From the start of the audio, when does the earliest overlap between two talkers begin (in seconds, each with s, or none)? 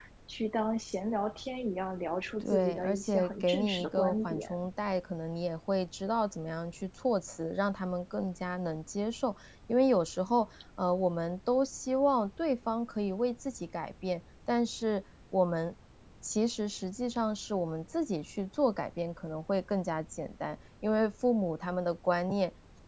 2.4 s